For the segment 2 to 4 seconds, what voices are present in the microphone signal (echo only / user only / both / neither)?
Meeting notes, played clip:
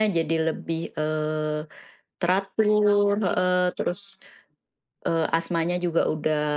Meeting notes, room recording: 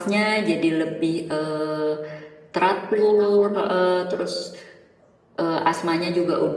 echo only